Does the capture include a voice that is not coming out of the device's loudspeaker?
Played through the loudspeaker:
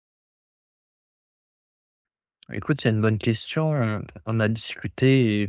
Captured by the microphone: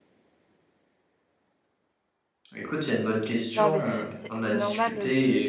Yes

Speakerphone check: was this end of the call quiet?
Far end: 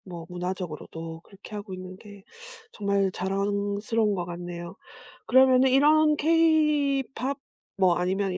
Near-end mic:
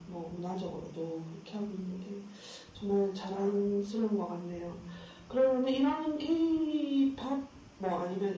Yes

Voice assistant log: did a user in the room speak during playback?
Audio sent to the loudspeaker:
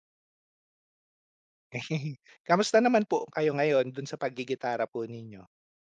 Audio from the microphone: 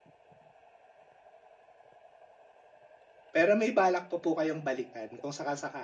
Yes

